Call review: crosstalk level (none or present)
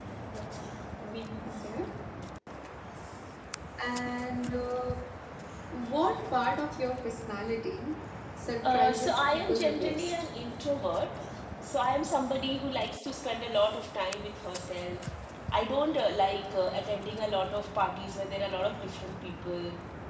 present